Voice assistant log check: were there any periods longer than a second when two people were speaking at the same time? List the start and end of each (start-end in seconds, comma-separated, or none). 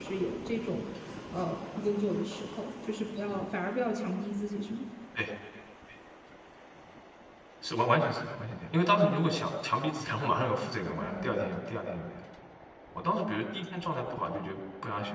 none